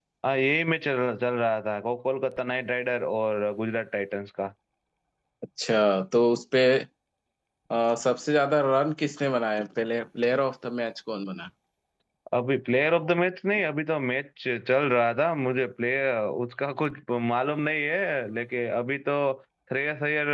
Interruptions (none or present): none